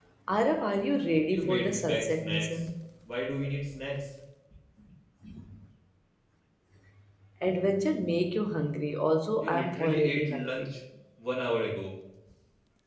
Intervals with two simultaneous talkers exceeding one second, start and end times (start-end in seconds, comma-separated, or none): 1.3-2.6, 9.4-10.7